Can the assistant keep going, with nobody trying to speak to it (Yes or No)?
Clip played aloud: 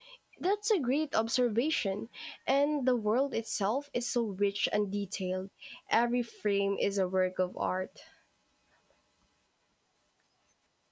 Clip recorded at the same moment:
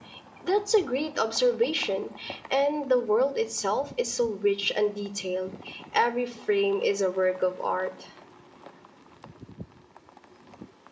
Yes